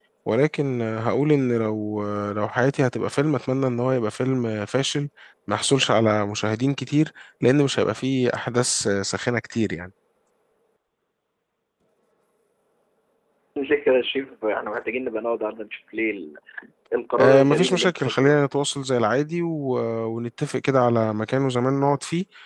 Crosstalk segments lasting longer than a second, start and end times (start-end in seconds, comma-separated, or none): 17.2-18.4